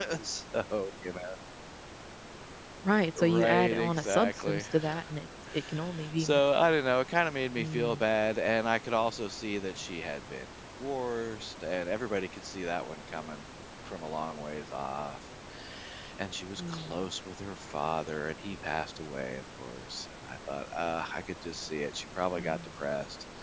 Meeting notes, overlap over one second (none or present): present